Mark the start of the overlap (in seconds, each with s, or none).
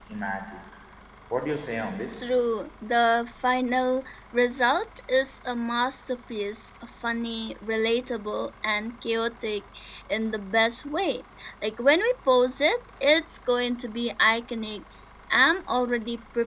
none